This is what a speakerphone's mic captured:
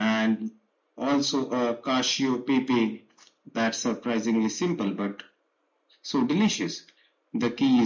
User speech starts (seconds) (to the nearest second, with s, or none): none